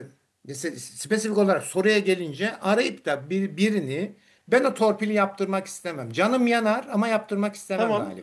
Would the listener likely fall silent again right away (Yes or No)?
No